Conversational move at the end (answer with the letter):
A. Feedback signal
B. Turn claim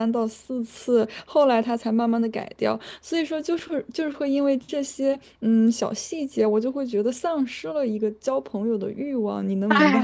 B